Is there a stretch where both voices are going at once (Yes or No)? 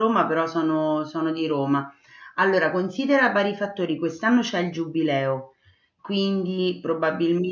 No